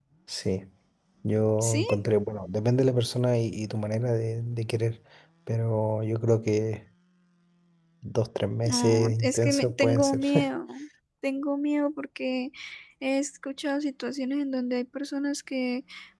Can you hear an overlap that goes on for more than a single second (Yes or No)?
Yes